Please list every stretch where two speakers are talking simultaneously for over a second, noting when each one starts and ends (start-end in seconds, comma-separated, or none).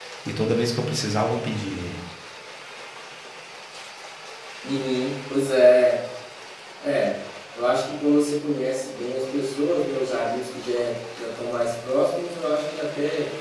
none